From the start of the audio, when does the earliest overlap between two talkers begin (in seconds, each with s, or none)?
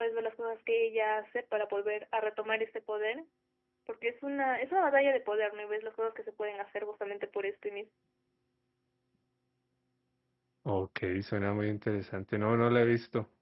none